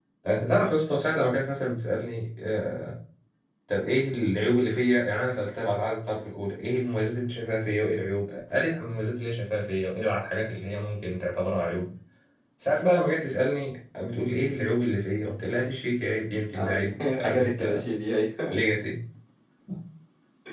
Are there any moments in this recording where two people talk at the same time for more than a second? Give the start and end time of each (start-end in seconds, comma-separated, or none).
16.5-17.8